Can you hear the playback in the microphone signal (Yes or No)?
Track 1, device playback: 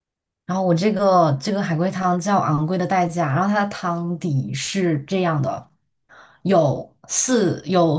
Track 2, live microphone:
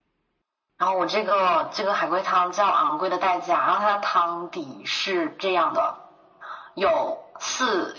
Yes